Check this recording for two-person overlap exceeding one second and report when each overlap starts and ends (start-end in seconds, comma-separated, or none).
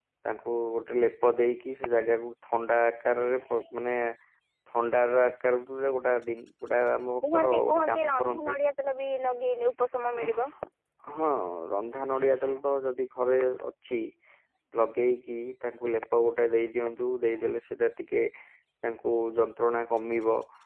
7.3-8.5